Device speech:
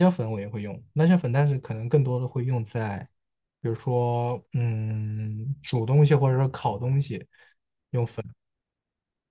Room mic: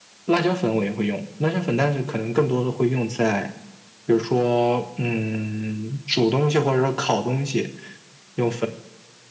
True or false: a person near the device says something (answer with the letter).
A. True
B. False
B